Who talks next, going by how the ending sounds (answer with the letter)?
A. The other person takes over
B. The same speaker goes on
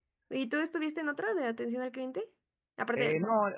A